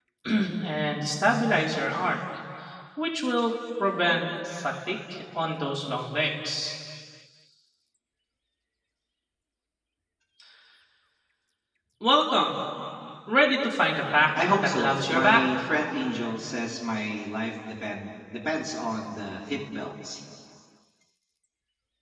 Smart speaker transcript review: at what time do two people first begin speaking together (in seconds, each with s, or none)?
14.4 s